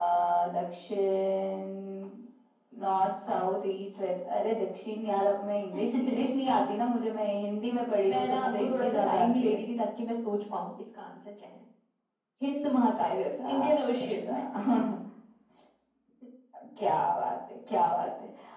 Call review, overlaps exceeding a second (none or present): present